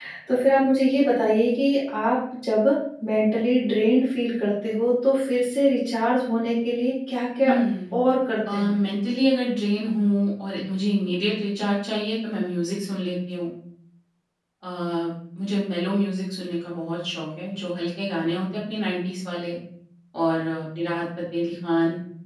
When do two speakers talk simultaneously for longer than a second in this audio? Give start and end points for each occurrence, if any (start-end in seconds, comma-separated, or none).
none